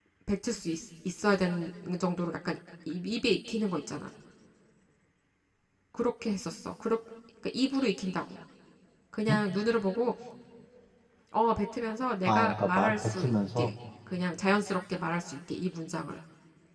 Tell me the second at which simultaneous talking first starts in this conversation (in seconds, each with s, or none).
12.2 s